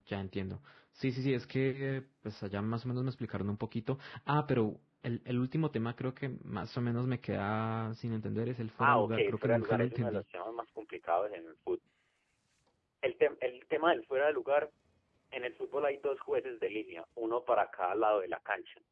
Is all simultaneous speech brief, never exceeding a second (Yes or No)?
No